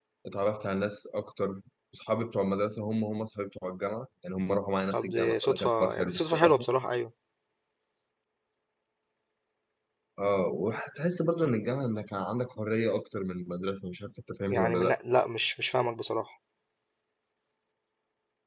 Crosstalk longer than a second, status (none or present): present